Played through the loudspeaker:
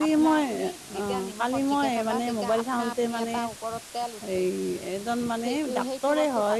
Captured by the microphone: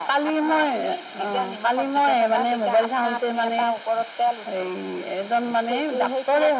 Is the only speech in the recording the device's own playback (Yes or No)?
Yes